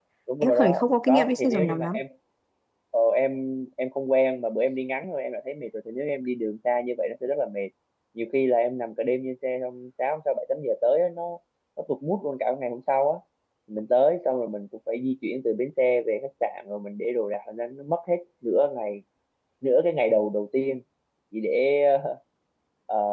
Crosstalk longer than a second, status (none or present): present